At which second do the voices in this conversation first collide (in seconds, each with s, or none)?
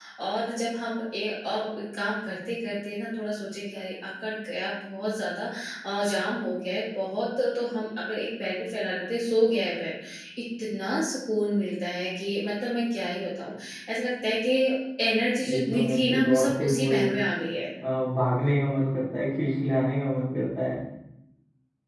15.5 s